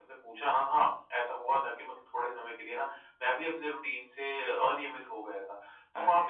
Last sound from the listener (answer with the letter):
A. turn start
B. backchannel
B